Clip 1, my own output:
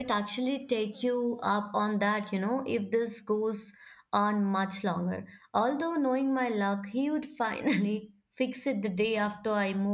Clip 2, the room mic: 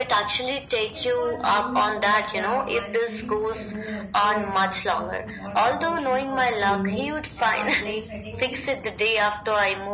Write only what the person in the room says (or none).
it's called being through, but yeah, my sleep schedule has been a disaster. So what about you? How's the new apartment setting in?